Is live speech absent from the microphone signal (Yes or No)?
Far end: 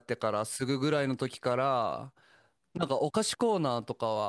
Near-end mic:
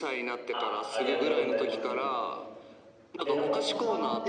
No